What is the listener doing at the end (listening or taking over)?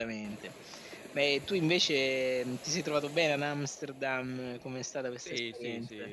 taking over